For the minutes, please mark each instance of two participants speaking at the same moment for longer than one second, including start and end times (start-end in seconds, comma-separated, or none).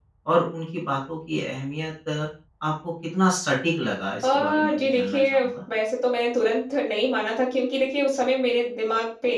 4.2-5.5